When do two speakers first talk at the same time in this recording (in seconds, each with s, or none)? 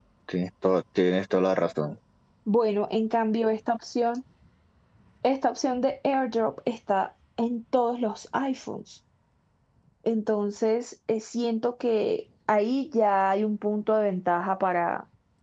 none